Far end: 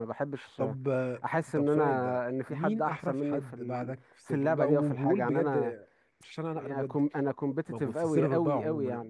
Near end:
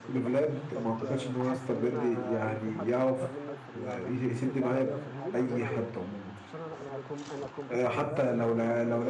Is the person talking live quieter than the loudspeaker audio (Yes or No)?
No